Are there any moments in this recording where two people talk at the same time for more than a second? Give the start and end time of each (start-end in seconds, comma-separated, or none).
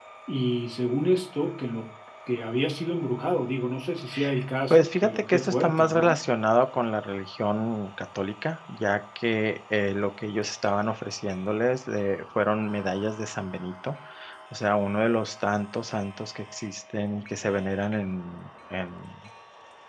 4.7-6.2